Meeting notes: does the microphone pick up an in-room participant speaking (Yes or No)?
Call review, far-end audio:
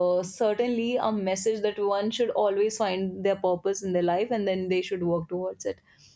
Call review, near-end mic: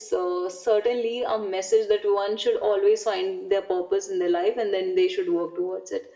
No